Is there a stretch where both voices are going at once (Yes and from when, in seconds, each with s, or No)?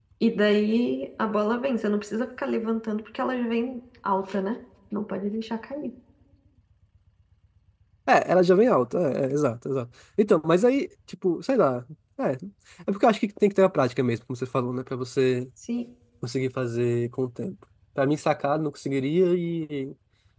No